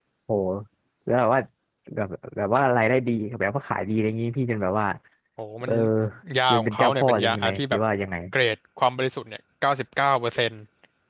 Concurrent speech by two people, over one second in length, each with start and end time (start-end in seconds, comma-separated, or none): 6.5-7.8